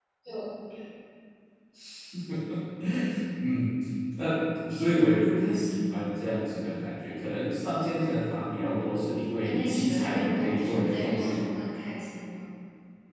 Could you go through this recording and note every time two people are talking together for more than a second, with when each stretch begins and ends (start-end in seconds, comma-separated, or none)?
9.4-11.4